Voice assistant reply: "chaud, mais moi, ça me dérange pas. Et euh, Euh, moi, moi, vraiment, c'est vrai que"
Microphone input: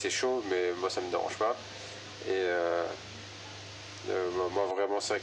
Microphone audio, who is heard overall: echo only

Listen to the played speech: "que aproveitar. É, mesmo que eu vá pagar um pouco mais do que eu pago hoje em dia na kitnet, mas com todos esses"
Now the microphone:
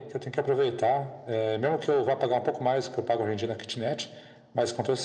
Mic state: echo only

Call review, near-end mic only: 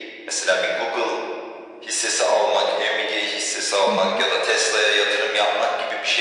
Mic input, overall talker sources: both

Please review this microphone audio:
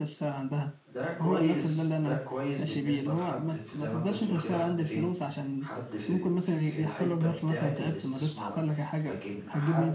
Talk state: both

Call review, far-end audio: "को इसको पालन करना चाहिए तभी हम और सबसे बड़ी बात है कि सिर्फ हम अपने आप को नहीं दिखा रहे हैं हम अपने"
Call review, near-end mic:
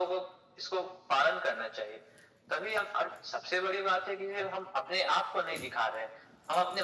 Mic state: echo only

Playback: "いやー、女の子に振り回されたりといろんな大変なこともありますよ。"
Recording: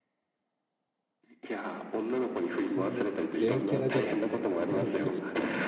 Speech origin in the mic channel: both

